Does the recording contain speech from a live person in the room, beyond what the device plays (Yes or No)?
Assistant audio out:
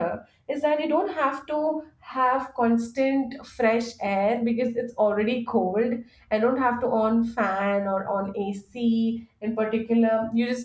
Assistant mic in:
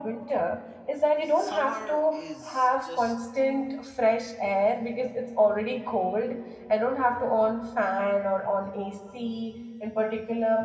Yes